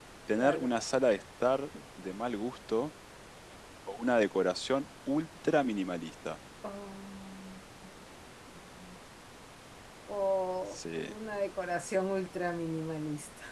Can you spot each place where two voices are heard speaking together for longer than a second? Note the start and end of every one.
none

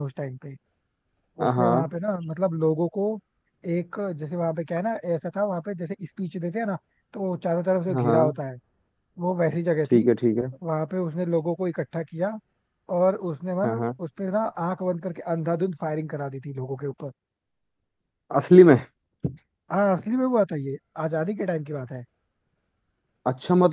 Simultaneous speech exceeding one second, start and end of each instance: none

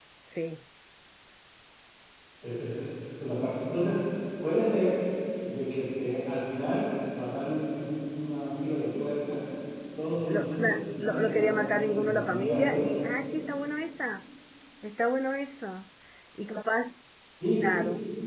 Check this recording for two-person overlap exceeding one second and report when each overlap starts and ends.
10.3-12.9

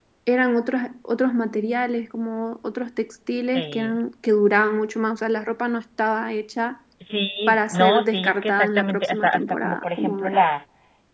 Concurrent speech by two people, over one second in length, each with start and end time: 7.5-10.4

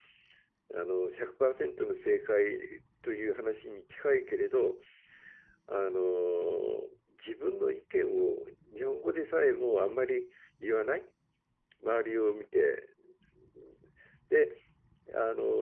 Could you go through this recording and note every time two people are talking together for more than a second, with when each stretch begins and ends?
none

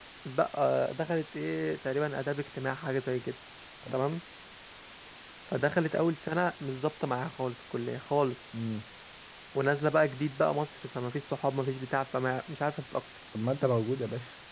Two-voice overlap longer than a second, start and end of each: none

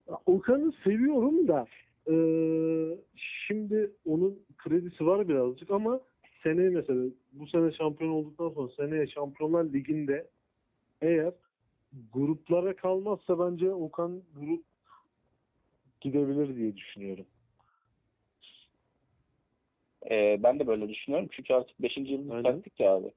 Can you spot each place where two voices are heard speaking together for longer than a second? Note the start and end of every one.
none

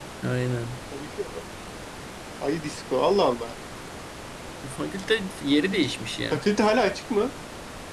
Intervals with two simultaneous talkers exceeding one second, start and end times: none

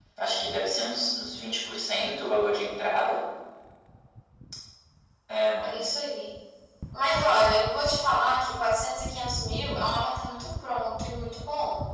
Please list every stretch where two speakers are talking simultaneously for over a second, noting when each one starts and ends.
none

